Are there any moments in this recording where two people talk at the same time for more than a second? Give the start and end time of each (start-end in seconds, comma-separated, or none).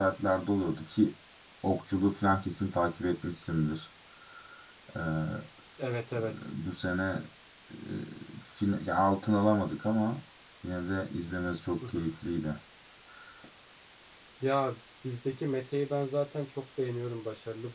none